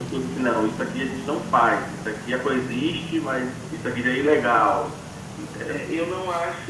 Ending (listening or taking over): taking over